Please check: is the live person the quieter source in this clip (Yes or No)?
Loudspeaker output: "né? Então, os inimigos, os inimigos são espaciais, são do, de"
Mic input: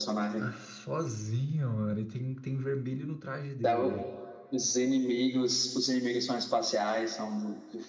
Yes